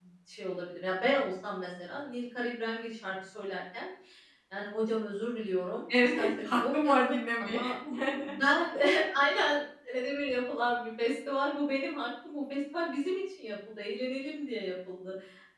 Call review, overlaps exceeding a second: present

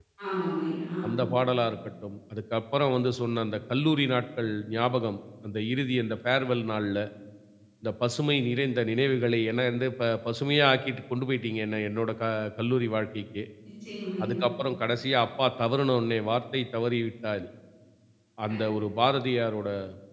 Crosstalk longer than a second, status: none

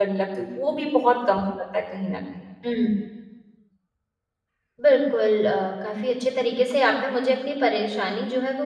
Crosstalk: none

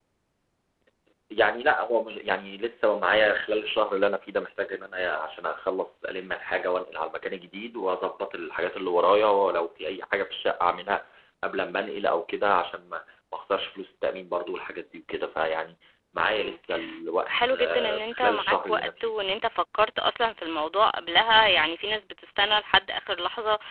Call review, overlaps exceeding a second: present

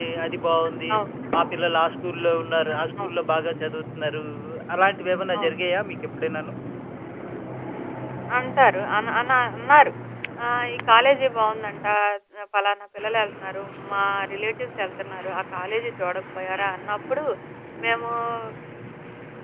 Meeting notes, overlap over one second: none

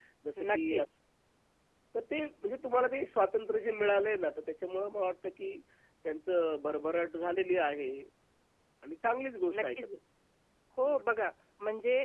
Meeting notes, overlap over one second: none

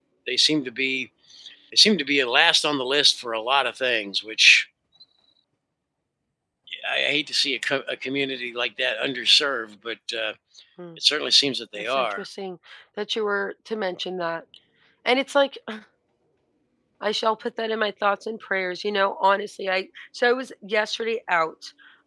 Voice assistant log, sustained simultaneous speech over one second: none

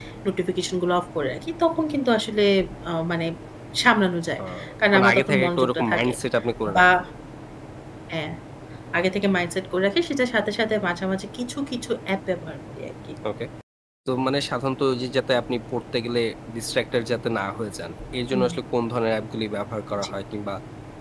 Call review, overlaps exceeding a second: present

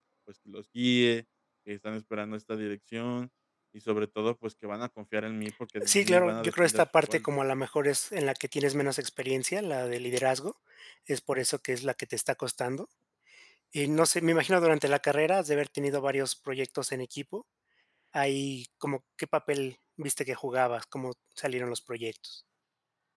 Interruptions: present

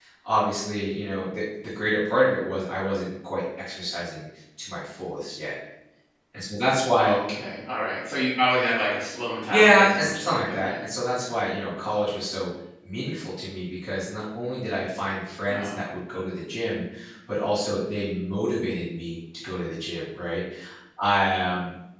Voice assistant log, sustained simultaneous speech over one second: present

